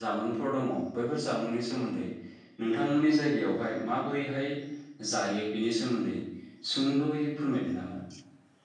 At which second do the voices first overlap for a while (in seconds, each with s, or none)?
none